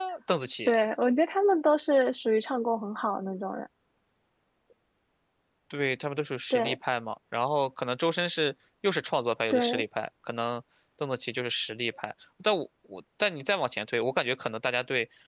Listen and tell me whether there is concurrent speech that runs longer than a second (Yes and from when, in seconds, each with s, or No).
No